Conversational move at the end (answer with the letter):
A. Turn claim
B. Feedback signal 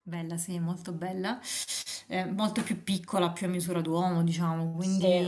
B